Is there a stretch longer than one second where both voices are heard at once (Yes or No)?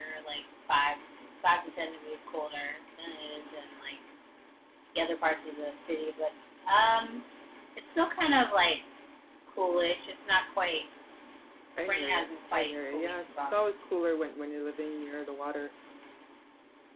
Yes